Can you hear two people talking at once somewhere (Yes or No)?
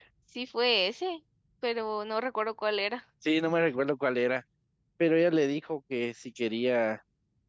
No